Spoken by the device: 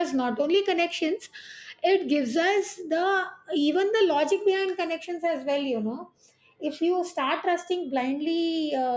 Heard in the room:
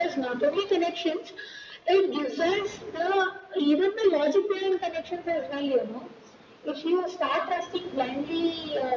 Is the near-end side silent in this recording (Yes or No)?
Yes